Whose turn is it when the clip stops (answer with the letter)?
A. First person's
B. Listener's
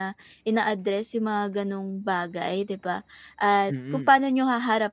A